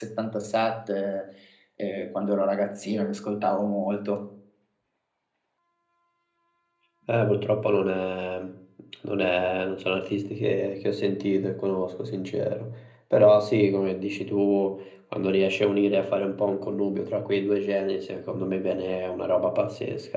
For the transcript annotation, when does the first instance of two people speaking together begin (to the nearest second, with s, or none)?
none